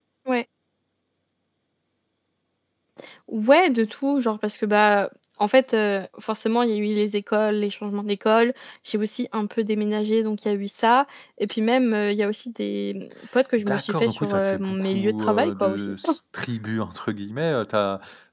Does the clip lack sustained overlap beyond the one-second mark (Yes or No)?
No